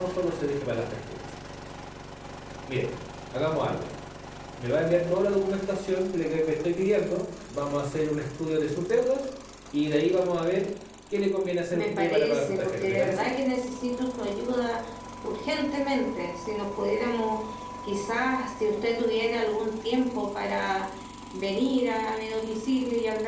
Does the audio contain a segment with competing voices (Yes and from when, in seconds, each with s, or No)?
Yes, from 11.7 s